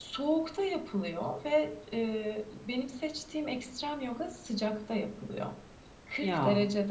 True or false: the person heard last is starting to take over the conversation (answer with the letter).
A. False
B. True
A